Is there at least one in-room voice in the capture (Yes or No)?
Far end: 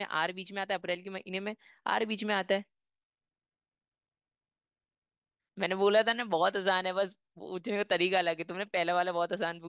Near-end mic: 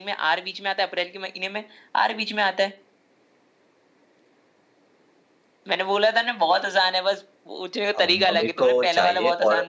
Yes